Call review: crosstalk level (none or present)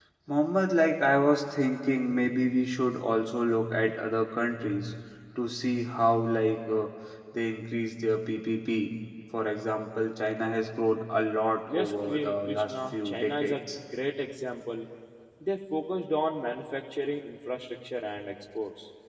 present